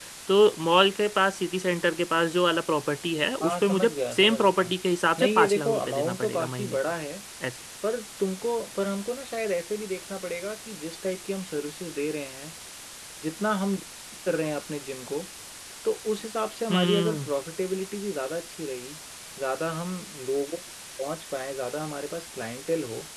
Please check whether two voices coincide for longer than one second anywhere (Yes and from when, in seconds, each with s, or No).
Yes, from 3.4 s